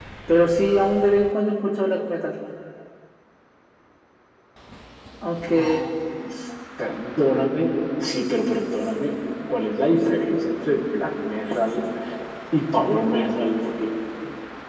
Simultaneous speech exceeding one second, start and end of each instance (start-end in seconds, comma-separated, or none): none